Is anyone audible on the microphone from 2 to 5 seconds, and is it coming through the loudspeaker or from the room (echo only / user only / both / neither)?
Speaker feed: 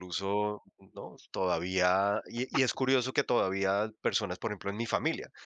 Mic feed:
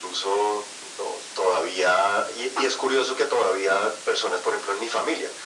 echo only